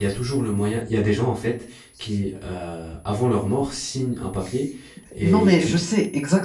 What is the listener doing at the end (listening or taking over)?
taking over